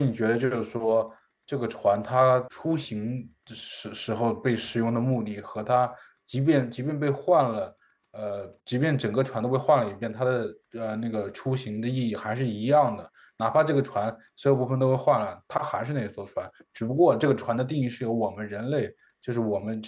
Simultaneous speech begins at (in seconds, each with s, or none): none